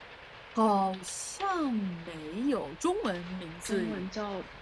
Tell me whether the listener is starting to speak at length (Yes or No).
Yes